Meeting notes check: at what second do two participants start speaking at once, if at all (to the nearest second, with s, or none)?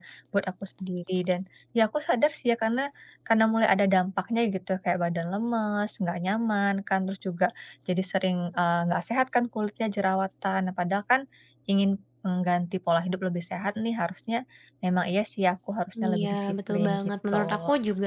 16 s